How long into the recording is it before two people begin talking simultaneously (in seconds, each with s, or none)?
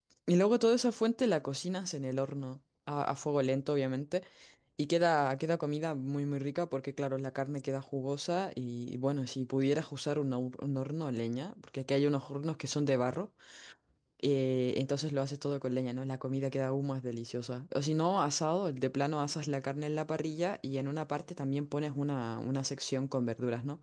none